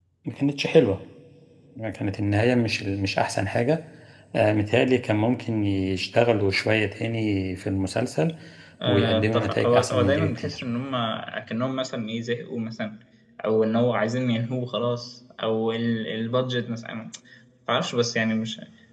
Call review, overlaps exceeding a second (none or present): present